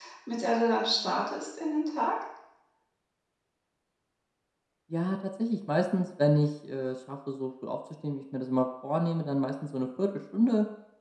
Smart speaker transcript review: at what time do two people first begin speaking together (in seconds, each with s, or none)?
none